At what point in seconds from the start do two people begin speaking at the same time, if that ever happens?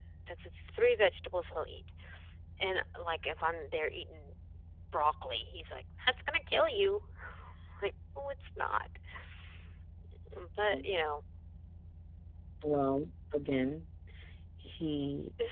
none

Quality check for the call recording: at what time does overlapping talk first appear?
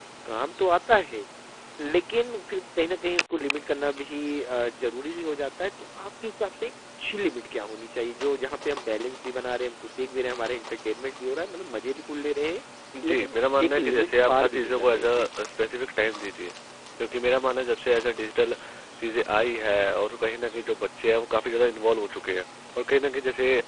13.0 s

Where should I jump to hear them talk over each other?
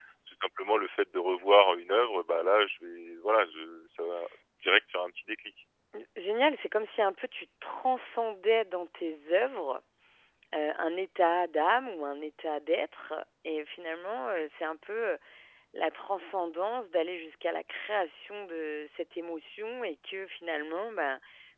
none

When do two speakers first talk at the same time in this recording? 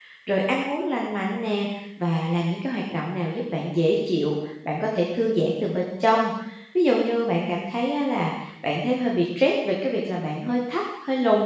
none

